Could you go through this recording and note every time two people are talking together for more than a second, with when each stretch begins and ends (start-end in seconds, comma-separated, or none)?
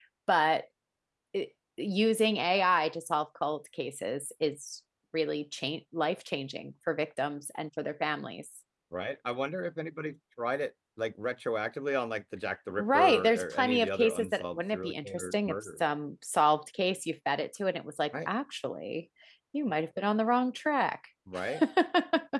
12.8-15.5